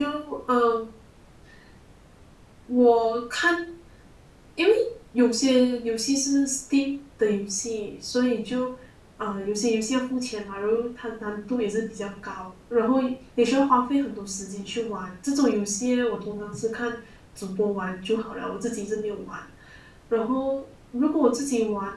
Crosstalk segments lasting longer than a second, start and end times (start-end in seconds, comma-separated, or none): none